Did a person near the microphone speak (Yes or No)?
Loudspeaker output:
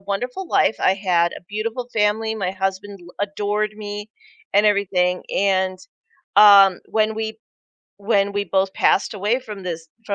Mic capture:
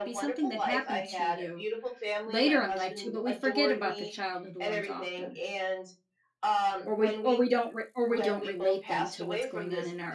Yes